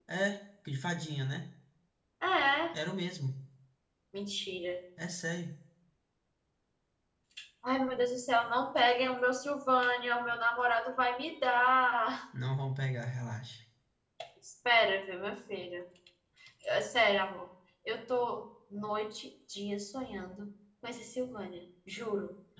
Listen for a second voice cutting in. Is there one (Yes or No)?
No